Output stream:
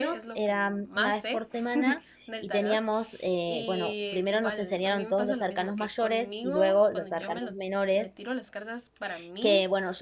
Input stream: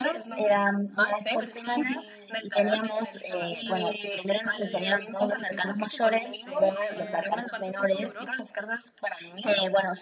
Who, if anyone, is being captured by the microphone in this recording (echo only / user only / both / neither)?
both